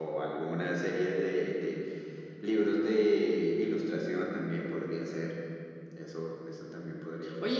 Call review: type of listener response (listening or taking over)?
taking over